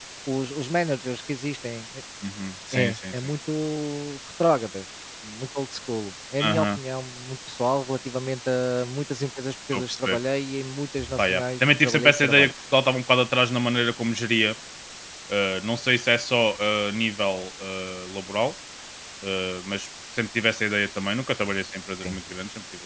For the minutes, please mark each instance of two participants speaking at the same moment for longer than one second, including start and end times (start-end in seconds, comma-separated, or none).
11.2-12.5